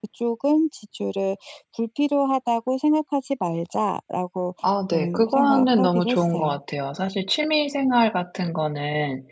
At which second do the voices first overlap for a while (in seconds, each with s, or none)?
4.9 s